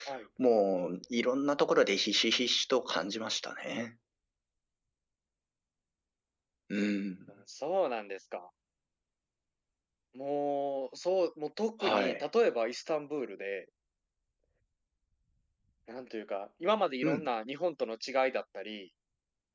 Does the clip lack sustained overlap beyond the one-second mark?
Yes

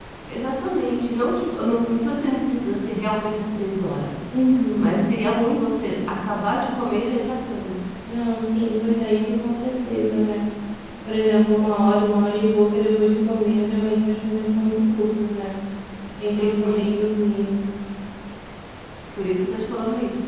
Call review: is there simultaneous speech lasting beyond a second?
No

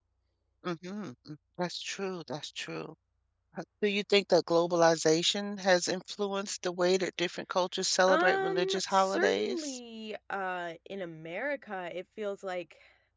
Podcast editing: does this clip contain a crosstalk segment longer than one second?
Yes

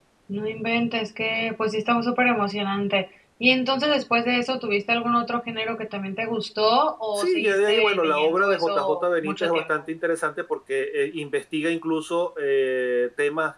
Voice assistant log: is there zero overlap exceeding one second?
No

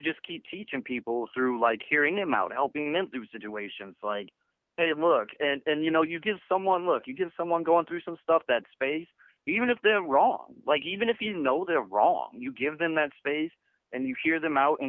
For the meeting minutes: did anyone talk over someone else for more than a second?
No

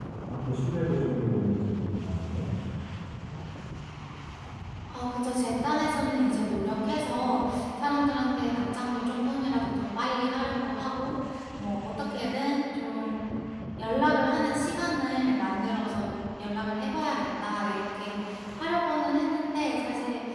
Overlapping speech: No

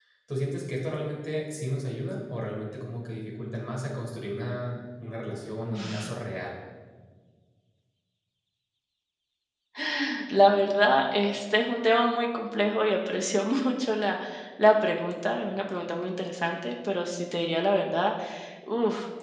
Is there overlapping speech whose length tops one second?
No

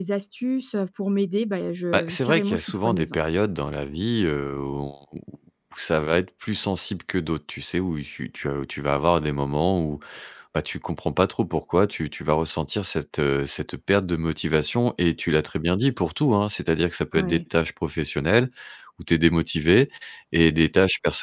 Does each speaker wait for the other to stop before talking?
No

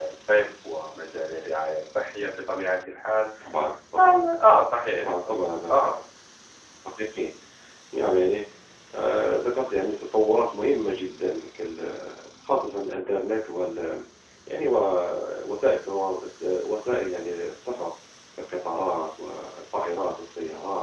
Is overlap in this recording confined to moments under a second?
Yes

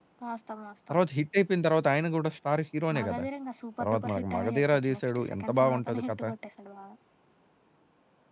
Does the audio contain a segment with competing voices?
Yes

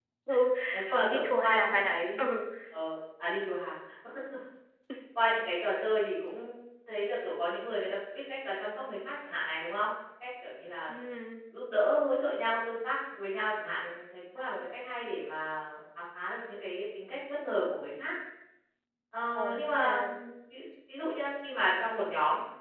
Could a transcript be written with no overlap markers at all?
No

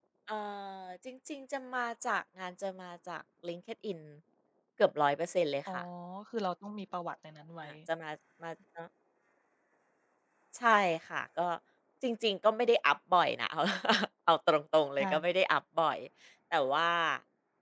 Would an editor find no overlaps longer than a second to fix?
Yes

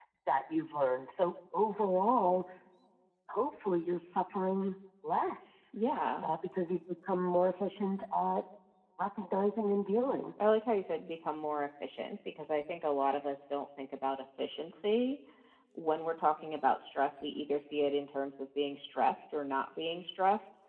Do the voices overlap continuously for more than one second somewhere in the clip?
No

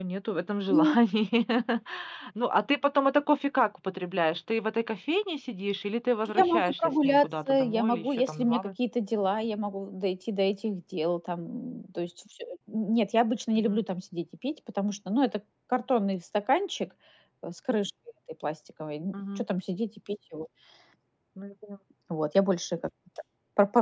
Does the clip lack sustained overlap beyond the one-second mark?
No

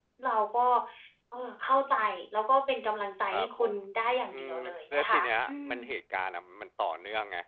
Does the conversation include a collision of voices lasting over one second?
Yes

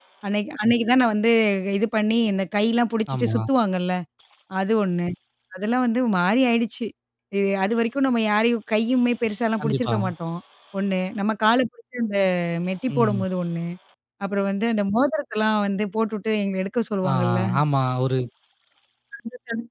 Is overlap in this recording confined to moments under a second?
Yes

